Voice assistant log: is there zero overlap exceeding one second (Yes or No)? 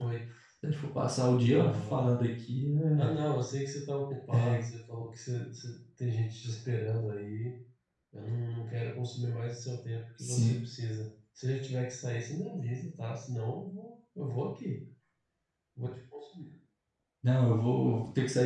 Yes